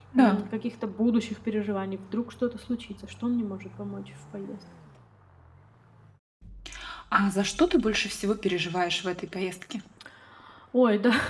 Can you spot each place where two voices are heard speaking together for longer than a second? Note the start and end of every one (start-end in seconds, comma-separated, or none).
none